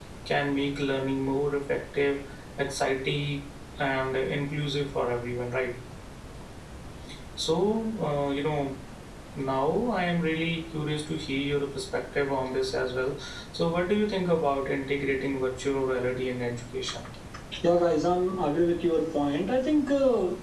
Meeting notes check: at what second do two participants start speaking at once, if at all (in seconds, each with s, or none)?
none